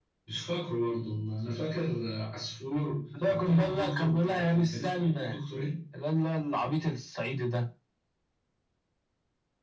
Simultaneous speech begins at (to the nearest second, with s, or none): 3 s